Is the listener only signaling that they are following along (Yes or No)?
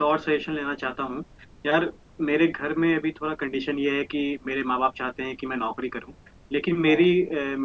Yes